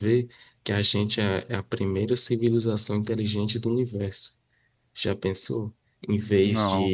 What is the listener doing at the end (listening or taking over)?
listening